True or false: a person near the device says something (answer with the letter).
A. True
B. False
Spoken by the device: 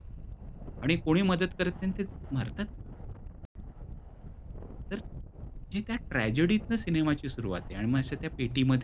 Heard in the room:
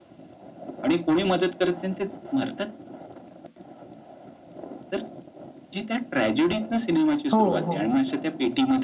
A